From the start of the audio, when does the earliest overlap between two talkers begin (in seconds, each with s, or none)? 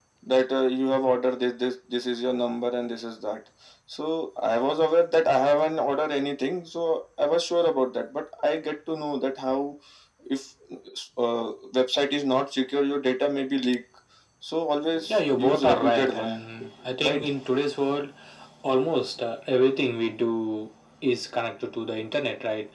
15.1 s